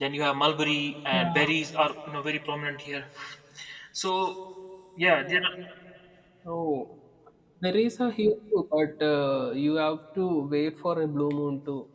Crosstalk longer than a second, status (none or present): none